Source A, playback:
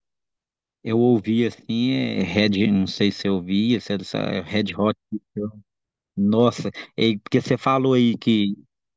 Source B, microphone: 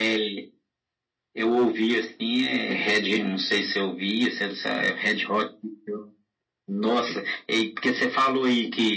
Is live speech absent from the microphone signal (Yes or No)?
Yes